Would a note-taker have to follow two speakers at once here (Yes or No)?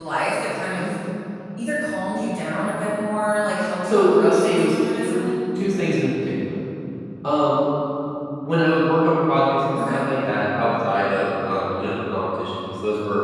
Yes